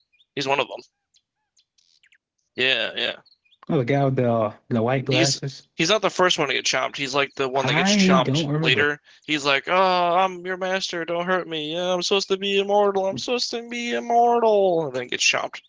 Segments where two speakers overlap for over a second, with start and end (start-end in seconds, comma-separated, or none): 7.6-8.8